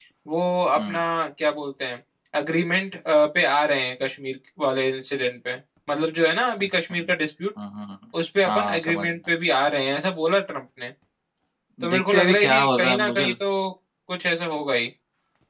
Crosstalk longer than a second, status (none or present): present